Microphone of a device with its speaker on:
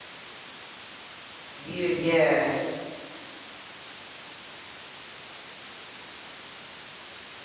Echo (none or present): none